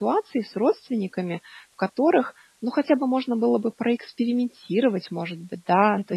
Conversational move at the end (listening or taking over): listening